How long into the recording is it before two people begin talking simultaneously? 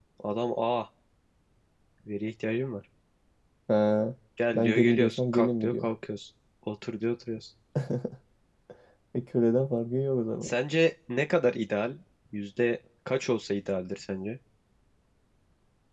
4.6 s

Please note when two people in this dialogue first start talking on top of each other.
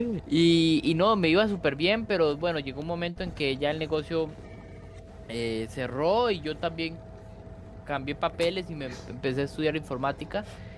none

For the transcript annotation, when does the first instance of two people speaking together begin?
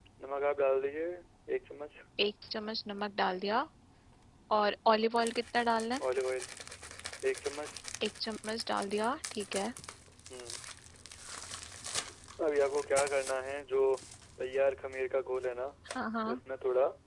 none

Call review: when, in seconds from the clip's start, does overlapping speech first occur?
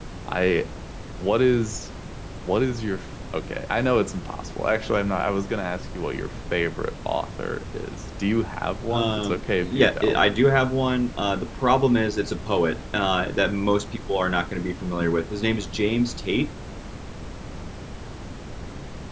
8.9 s

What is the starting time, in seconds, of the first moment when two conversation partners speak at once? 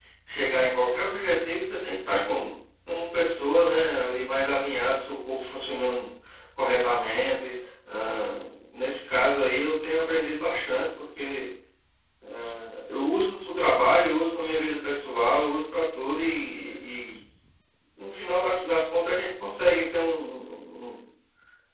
none

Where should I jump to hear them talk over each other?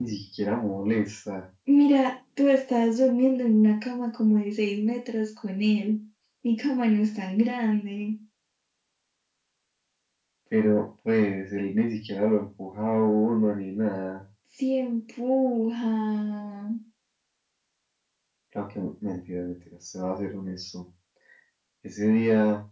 none

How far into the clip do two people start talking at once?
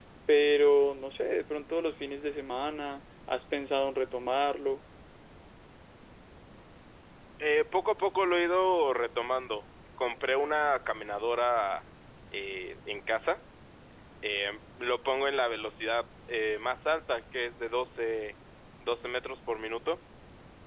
none

